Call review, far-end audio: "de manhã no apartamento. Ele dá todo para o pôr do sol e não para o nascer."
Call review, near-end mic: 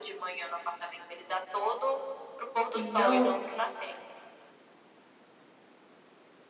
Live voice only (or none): Então,